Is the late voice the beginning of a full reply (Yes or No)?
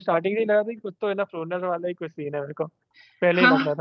Yes